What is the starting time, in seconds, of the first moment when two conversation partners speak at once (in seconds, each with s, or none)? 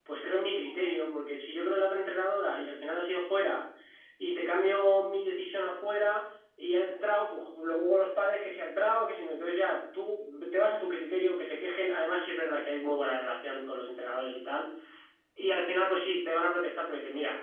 none